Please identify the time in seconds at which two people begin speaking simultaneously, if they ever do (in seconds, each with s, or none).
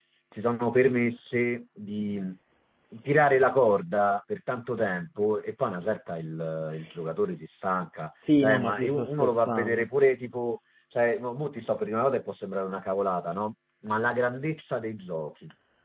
8.3 s